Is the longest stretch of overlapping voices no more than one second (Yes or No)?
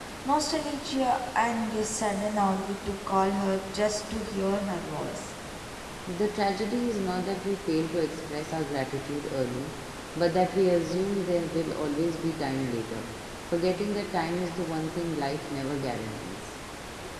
Yes